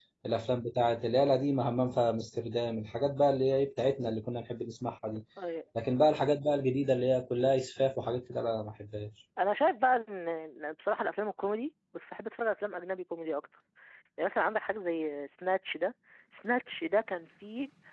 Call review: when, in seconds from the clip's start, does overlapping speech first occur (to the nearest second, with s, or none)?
none